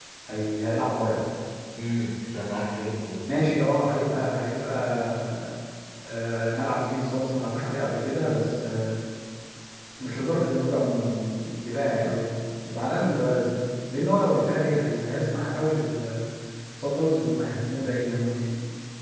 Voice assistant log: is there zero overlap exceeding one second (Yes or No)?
Yes